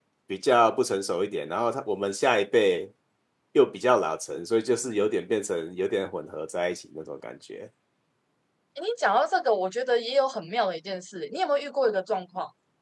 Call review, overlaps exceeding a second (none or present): none